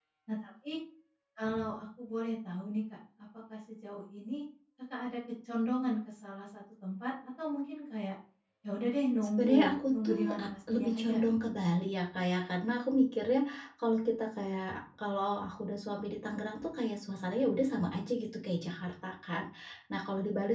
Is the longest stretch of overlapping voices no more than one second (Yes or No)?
No